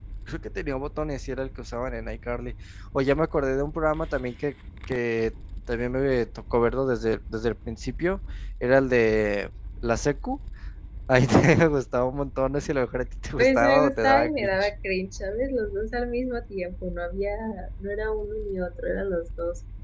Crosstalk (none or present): present